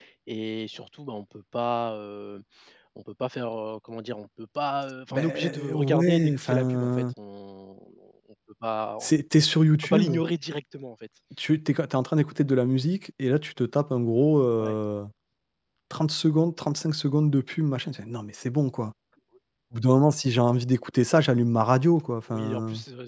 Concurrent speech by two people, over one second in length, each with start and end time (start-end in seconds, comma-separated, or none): 5.1-7.0